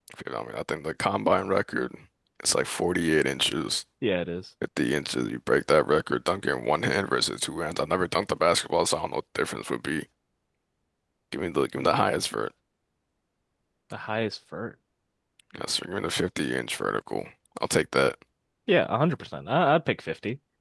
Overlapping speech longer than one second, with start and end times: none

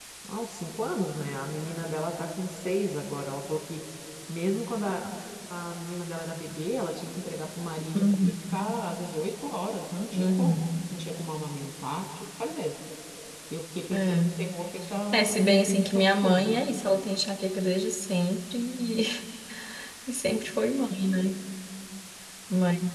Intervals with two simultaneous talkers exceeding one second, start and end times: 15.2-16.6

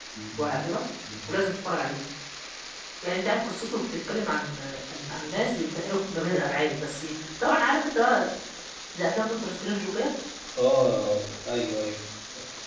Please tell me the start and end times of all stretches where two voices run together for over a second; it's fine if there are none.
none

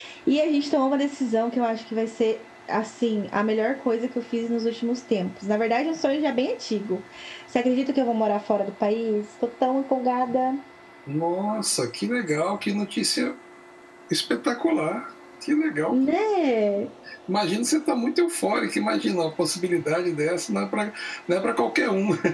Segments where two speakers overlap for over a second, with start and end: none

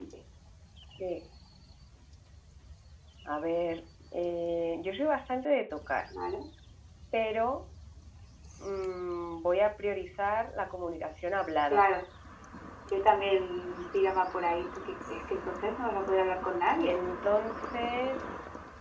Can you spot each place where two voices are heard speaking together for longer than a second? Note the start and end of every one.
none

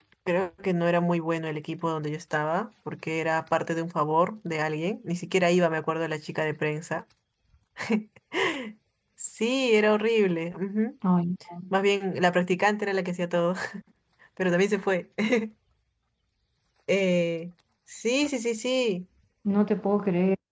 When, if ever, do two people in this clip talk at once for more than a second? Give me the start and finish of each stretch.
none

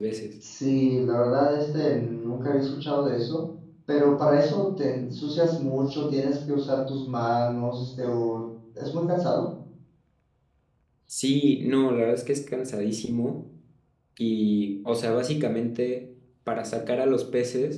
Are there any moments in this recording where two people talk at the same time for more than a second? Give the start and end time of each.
none

